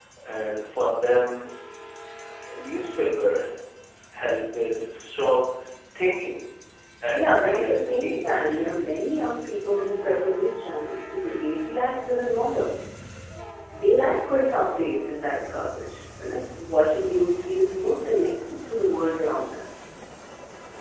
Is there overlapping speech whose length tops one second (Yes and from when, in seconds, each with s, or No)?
Yes, from 7.1 s